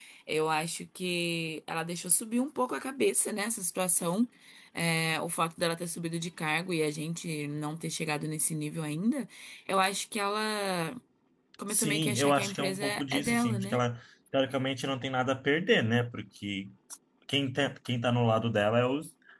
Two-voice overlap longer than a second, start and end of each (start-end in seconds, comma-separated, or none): 11.7-13.8